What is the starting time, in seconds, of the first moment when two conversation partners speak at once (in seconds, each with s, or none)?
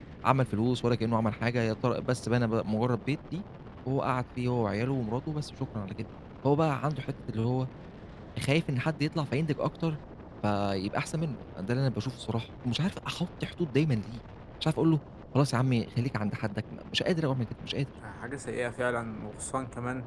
none